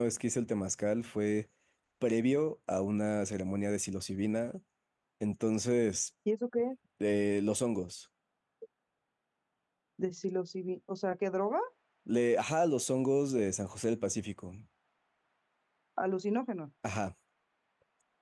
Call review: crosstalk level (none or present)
none